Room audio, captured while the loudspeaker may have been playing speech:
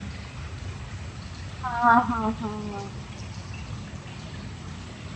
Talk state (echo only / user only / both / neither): user only